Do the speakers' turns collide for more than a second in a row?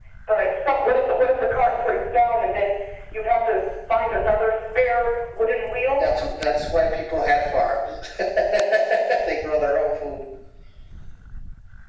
No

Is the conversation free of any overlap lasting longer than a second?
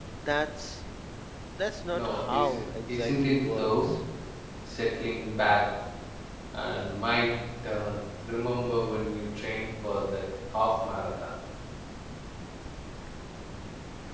No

